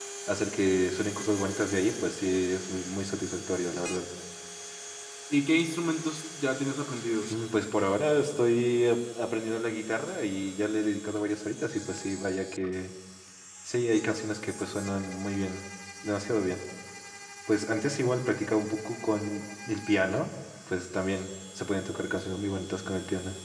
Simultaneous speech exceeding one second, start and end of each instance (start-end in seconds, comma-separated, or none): none